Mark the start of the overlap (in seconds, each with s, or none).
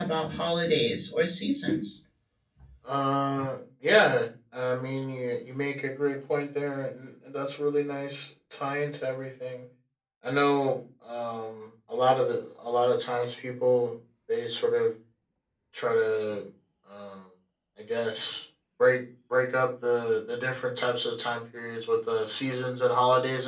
none